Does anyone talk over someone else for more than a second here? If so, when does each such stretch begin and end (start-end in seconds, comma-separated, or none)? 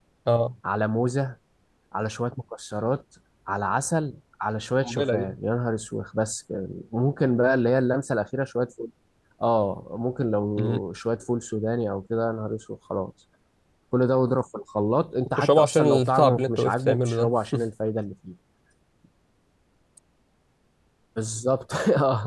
15.4-17.3